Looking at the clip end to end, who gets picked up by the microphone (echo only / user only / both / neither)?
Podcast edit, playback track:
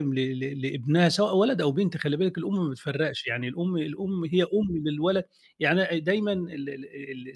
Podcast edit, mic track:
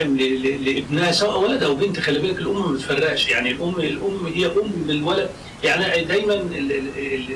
echo only